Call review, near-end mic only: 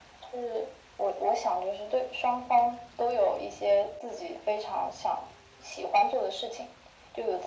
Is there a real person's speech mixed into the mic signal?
No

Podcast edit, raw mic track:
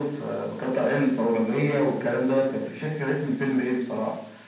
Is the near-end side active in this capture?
No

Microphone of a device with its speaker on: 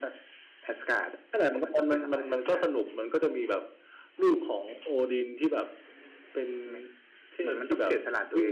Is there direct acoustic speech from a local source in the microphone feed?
No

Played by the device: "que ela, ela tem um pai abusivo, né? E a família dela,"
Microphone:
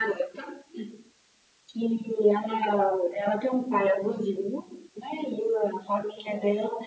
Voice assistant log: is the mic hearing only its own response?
Yes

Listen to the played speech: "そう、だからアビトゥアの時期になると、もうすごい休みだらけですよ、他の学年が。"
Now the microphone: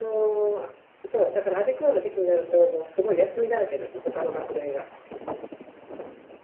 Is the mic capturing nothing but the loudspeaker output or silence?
Yes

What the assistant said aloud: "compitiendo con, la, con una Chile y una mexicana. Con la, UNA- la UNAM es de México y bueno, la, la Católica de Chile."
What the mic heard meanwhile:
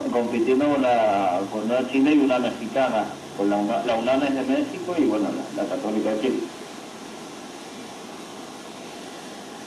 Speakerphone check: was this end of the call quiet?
Yes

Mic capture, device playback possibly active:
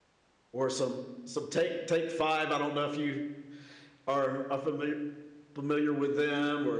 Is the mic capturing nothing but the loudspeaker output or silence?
No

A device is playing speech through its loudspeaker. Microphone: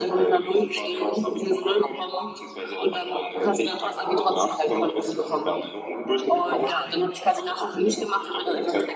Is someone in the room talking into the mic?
No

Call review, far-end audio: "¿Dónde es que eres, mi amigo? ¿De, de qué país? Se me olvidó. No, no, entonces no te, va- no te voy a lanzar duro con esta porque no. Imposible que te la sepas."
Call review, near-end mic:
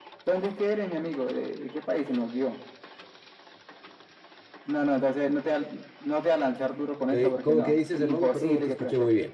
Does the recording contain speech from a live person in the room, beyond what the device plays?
Yes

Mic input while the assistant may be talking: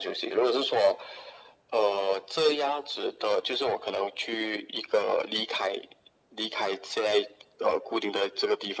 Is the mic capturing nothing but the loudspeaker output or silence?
Yes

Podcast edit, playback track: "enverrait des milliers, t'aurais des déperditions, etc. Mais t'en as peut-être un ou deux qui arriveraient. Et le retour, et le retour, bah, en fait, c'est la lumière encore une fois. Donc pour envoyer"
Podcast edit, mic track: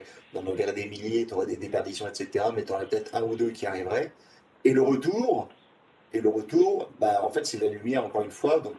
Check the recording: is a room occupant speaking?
No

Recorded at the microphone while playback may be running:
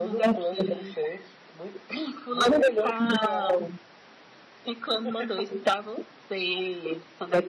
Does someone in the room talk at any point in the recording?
No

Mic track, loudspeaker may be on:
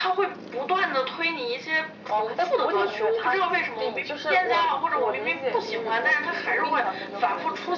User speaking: No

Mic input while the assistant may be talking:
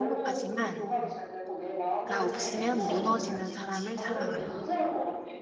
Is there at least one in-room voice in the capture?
Yes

